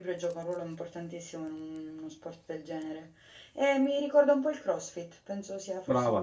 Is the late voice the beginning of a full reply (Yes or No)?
Yes